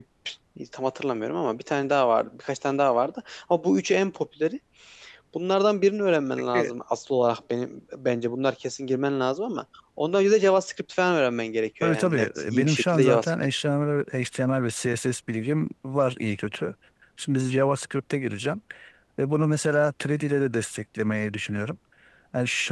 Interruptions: present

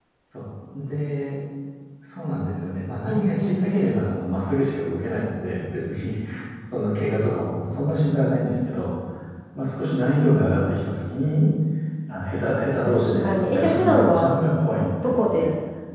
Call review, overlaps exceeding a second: present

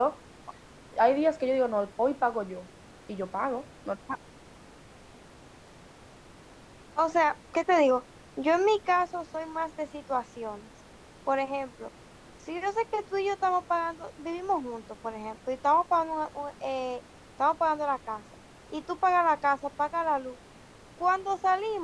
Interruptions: none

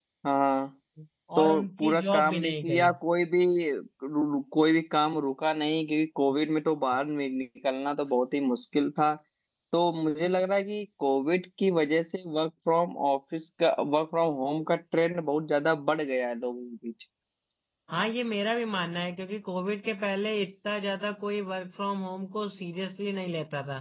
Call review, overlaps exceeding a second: present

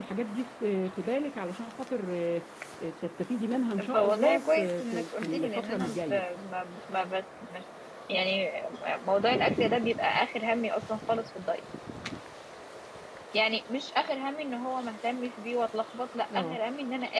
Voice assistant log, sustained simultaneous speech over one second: present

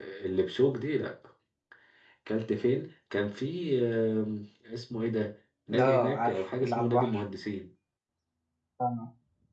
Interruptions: present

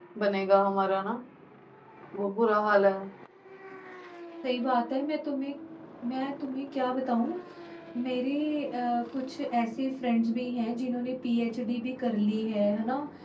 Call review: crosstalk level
none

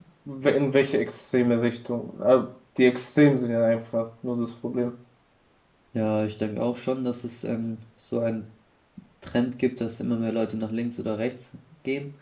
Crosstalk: none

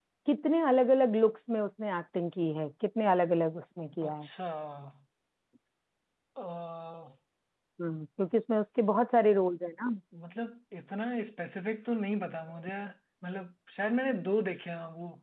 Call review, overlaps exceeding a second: none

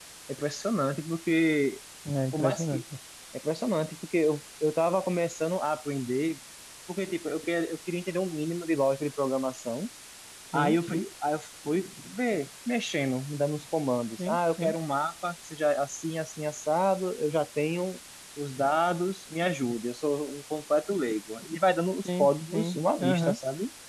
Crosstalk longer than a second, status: present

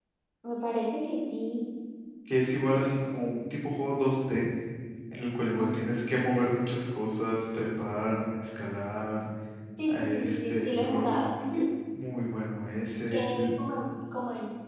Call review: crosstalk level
present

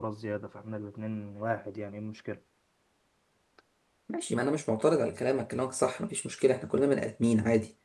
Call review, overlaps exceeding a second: none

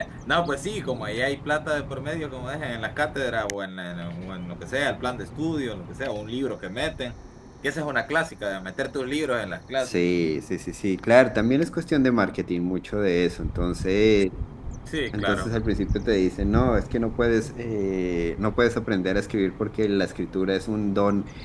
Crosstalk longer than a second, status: none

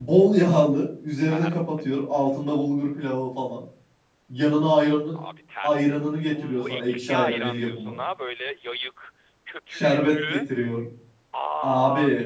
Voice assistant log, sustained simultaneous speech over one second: present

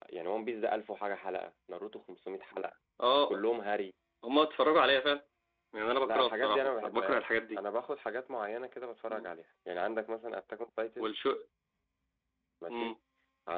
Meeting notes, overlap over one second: present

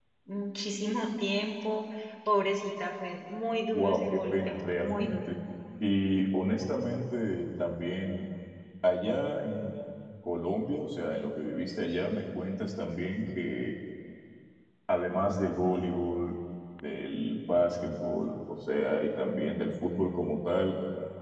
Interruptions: present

